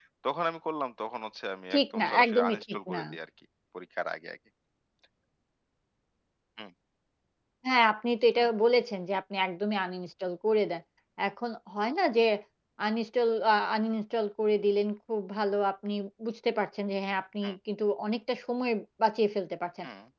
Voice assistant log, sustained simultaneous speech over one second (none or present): present